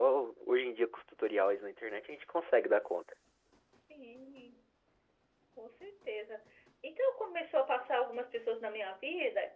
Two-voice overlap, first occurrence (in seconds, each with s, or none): none